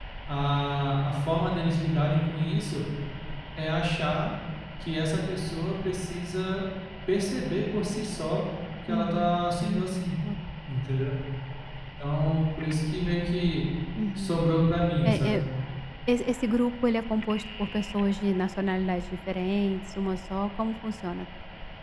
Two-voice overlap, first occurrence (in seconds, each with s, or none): 8.9 s